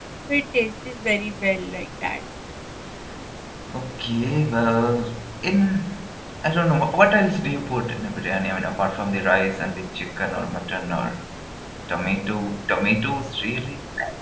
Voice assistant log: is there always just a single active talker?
Yes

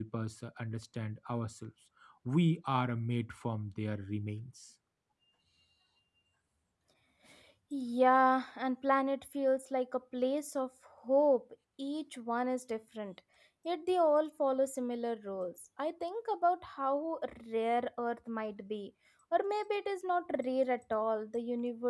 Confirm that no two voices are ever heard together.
Yes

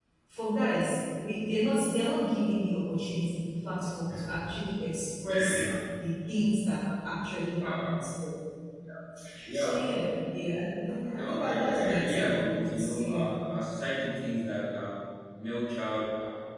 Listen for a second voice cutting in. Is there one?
Yes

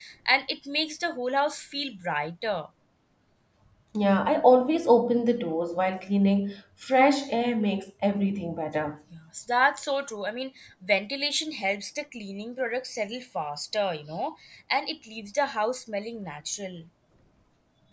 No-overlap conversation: Yes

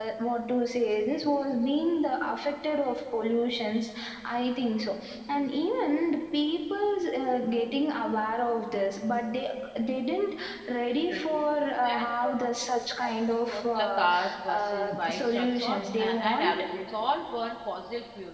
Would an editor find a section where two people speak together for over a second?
Yes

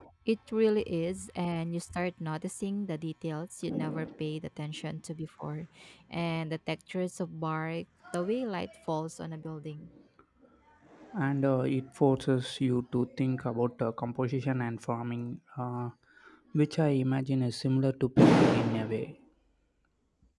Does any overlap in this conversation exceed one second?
No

